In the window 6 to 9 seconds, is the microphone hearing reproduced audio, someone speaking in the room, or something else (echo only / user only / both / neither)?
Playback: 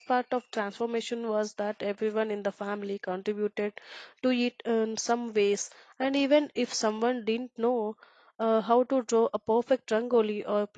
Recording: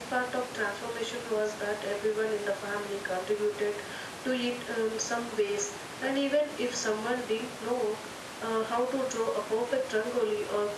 echo only